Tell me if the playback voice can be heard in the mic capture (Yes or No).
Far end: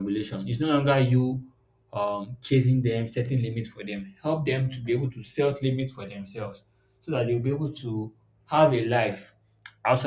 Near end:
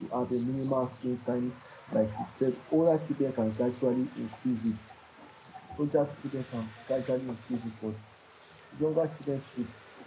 No